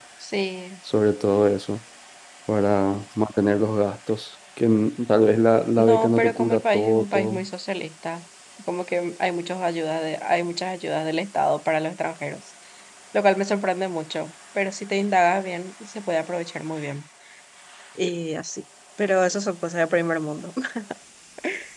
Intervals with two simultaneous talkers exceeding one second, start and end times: 5.8-7.4

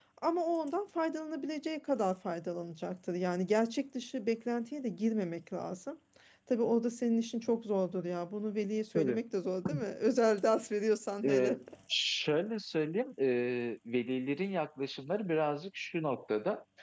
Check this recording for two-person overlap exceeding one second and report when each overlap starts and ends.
none

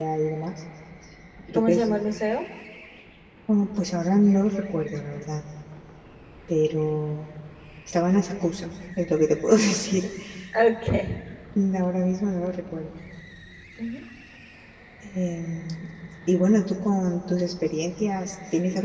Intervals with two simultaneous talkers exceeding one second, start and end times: none

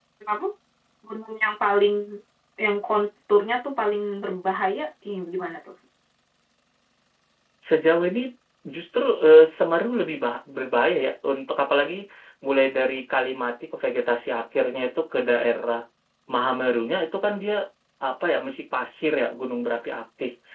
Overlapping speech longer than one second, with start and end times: none

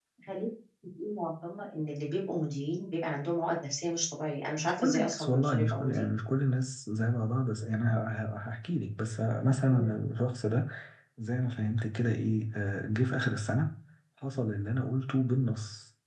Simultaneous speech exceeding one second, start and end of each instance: 4.6-6.0

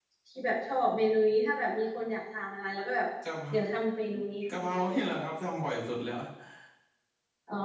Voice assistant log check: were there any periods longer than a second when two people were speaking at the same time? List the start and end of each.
none

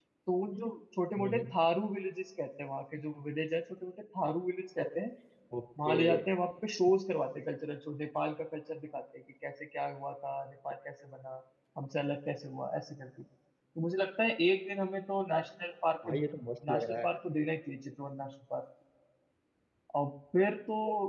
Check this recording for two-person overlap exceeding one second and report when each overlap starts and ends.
none

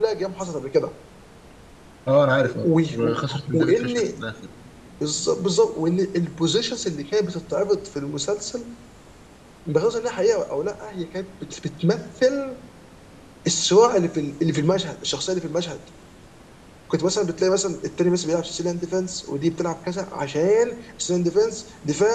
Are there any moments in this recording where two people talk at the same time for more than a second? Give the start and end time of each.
2.6-3.9

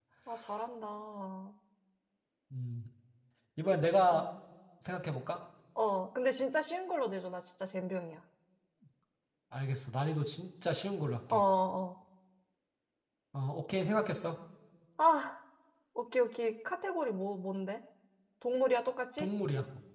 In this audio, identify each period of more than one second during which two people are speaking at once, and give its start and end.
none

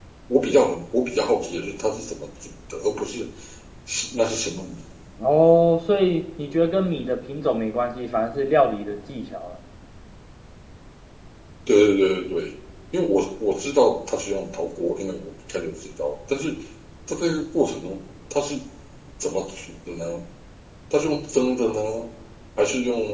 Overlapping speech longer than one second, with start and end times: none

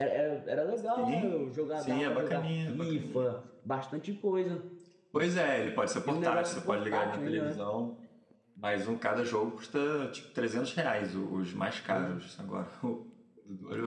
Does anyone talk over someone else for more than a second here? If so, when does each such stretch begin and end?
1.8-3.3, 6.1-7.6

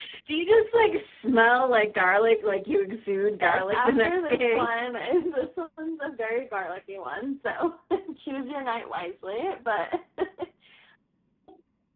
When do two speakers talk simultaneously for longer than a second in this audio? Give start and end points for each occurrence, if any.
3.4-4.7

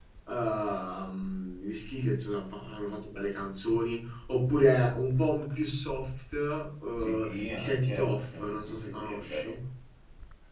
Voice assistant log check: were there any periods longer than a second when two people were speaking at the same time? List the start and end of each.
7.0-9.5

